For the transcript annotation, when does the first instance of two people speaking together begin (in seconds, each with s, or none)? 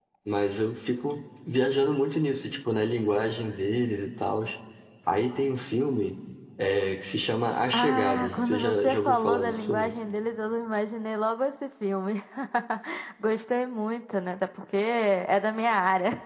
7.7 s